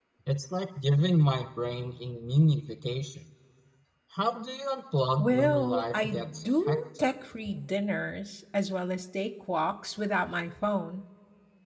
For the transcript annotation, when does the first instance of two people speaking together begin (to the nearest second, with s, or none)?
5 s